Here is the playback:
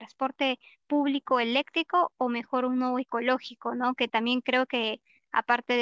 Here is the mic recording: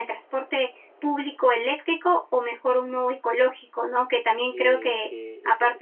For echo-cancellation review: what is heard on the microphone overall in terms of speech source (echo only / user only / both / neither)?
both